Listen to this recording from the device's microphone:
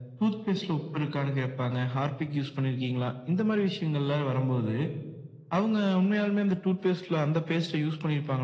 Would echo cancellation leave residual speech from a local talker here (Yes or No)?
No